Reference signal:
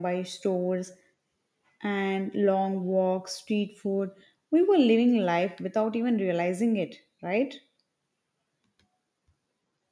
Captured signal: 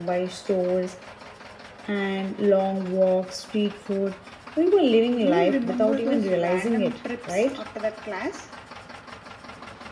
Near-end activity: present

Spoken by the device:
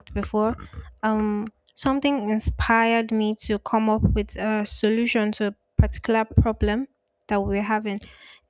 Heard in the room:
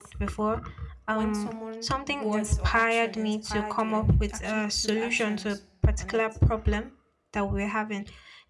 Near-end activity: present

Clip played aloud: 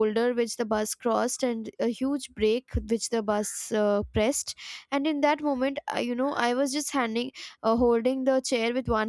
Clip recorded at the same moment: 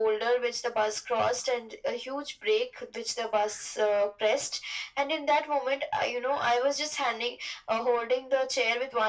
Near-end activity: none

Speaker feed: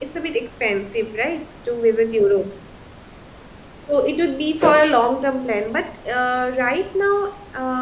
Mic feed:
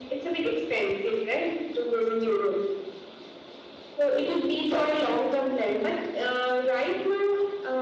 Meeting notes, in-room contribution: none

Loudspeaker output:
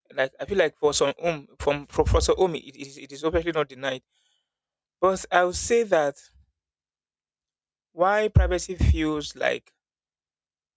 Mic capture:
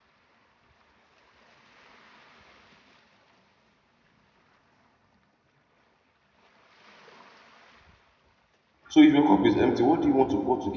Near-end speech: present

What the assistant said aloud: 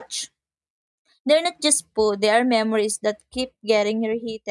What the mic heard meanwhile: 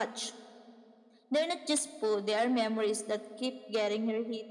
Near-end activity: none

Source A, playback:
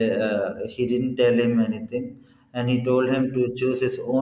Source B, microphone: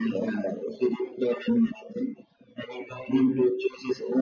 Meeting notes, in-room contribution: none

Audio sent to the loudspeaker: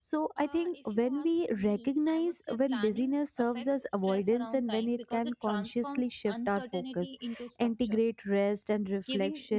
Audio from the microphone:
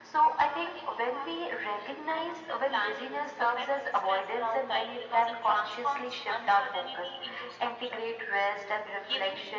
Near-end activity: none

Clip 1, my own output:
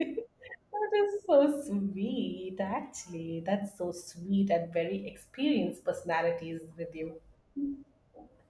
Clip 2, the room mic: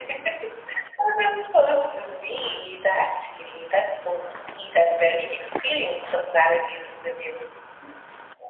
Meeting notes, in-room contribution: none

